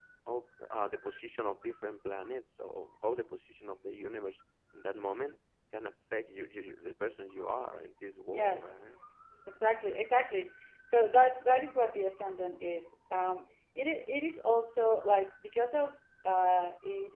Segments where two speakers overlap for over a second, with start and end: none

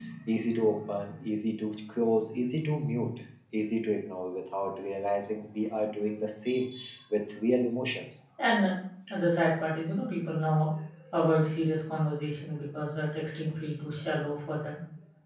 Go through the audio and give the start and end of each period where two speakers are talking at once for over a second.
none

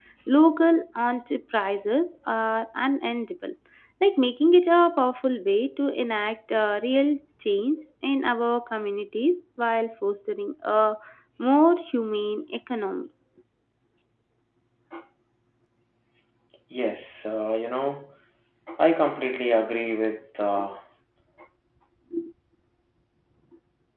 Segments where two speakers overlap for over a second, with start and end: none

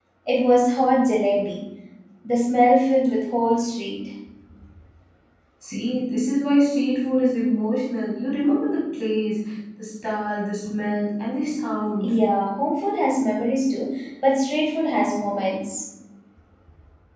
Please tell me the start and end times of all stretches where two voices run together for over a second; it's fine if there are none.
none

